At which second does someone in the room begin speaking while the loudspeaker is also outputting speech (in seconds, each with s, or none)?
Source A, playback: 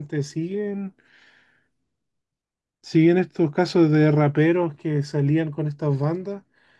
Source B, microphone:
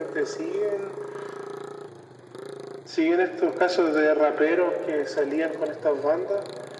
none